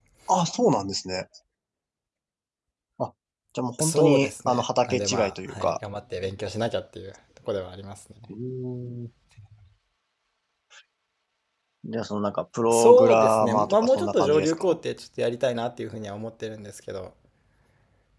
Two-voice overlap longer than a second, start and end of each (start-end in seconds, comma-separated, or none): 3.8-5.7, 12.7-14.8